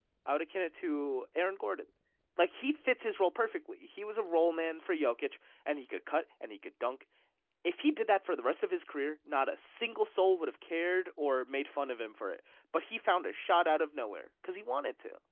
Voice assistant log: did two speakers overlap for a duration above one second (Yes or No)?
No